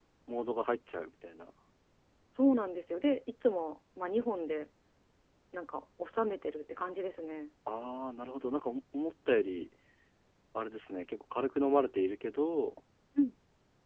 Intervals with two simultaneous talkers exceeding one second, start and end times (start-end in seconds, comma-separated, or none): none